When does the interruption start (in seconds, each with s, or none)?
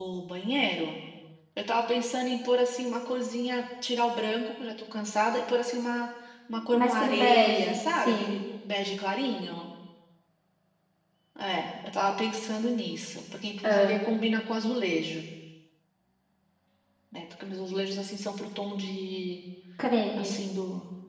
6.7 s